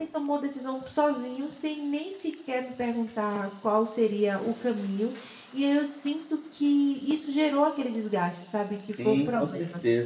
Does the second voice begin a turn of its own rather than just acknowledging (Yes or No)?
Yes